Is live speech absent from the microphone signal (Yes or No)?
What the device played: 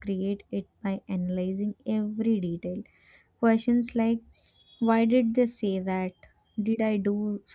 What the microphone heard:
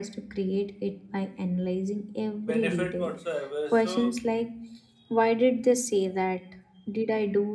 No